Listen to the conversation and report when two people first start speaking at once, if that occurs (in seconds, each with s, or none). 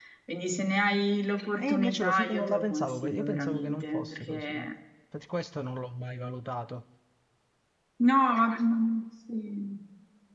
1.6 s